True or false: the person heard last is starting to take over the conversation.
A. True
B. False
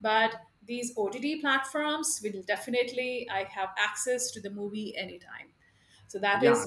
A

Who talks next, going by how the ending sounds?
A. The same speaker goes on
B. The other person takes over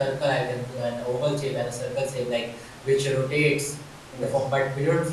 A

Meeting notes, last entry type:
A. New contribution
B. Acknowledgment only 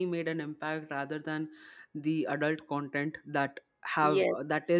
B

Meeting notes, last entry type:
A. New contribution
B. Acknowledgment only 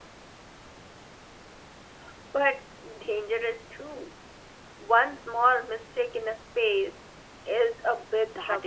A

